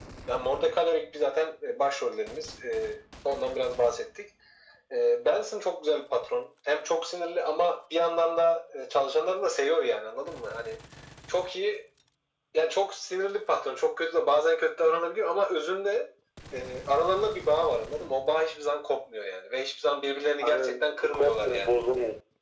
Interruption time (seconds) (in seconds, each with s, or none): 20.4 s